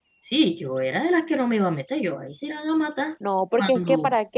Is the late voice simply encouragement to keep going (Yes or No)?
No